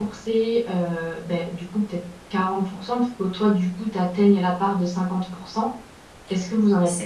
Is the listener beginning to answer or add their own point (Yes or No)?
Yes